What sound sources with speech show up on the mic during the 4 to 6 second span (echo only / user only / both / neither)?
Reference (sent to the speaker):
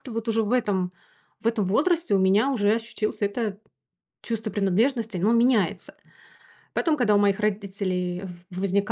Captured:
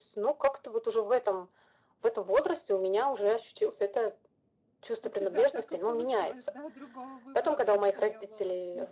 both